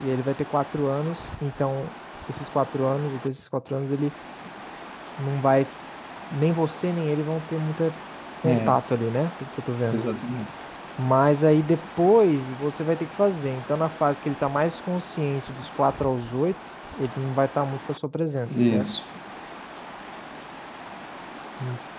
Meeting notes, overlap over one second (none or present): none